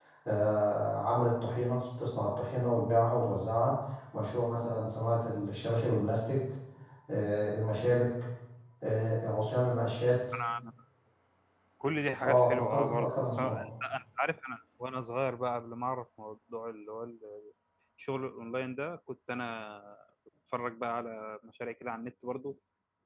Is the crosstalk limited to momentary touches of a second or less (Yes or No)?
No